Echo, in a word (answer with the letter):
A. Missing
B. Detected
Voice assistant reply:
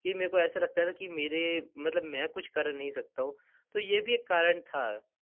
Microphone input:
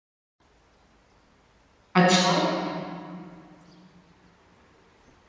A